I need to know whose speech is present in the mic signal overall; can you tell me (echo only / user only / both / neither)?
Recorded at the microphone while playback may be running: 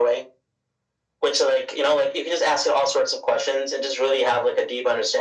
echo only